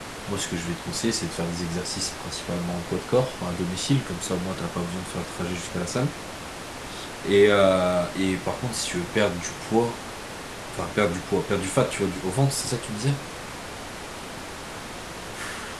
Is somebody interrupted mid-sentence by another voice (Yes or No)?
No